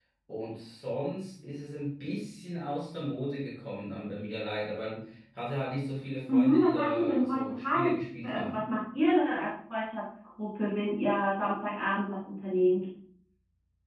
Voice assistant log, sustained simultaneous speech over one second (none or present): present